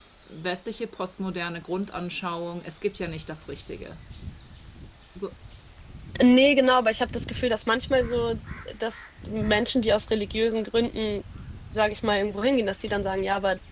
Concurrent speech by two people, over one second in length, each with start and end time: none

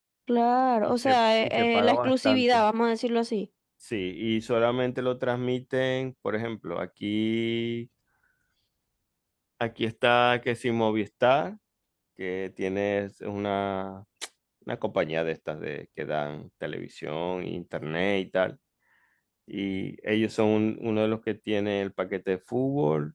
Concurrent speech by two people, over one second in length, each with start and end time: 0.8-2.6

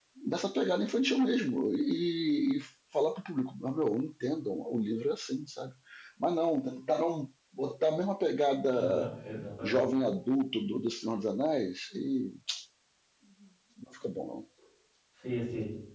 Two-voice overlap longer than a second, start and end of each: none

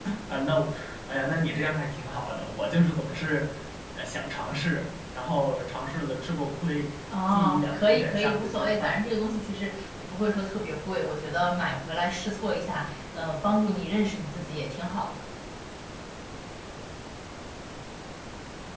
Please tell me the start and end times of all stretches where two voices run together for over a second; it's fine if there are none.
7.3-9.0

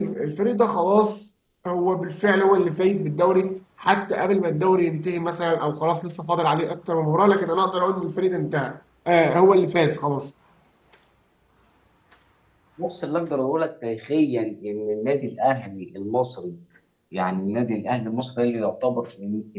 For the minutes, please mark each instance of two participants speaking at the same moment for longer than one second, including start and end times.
none

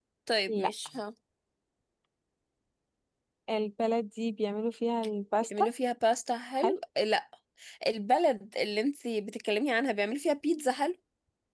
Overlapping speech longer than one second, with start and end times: none

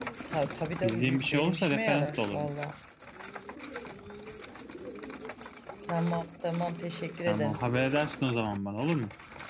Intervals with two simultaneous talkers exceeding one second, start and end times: 0.8-2.5

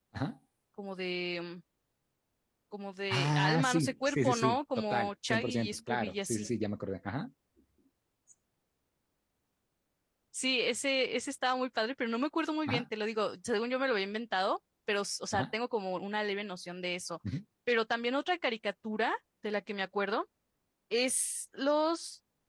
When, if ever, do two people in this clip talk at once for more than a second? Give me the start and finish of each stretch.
3.1-6.5

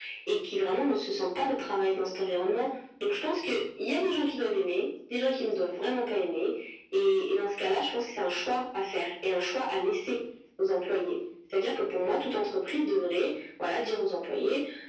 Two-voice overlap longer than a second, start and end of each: none

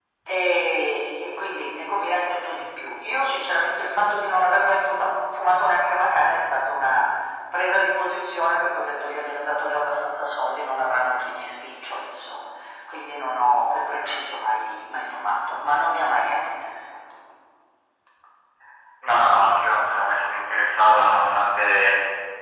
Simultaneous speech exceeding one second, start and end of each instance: none

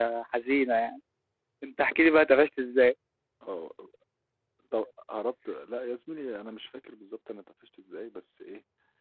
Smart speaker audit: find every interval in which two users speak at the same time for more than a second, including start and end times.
none

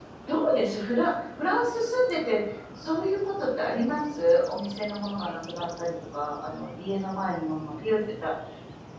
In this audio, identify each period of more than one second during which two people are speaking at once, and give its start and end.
none

